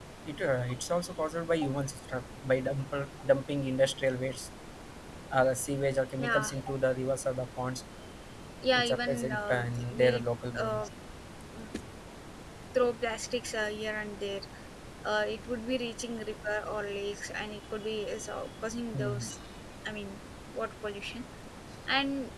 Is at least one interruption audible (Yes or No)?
Yes